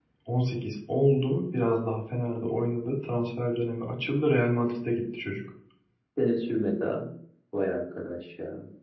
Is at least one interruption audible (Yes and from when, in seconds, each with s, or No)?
No